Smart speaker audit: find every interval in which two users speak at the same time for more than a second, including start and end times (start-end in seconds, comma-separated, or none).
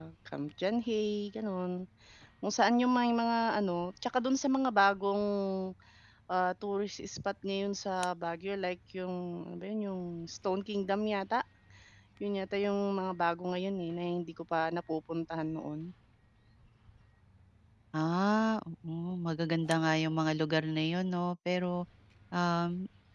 none